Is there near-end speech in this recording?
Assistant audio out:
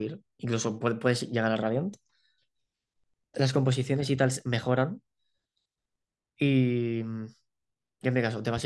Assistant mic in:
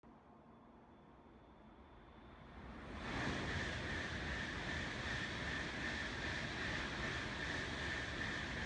No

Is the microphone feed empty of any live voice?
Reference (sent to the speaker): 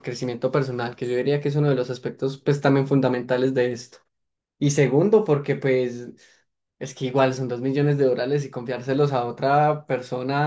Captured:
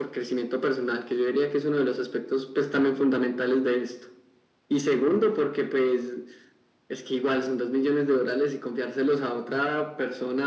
Yes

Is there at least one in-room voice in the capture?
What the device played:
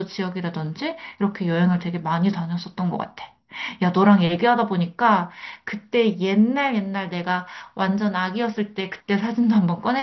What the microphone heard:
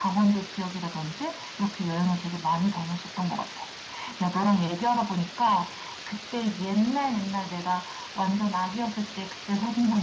No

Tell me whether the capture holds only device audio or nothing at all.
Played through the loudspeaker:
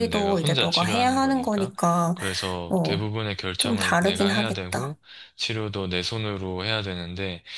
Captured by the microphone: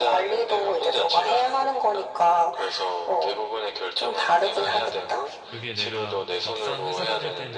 No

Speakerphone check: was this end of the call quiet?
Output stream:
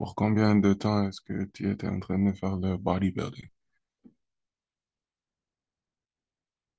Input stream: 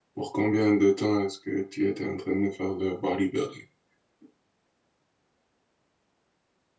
Yes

